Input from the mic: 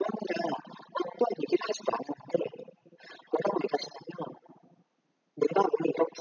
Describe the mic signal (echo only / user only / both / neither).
echo only